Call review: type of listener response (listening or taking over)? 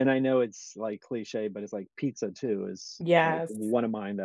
listening